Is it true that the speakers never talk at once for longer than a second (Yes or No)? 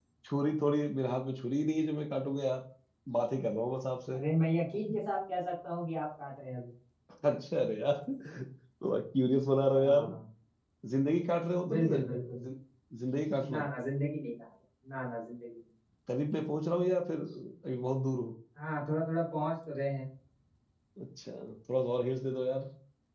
Yes